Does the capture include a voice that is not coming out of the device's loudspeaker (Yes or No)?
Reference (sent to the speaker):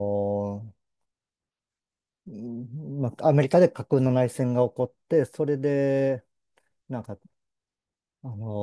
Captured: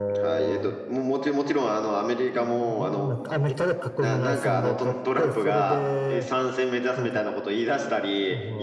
Yes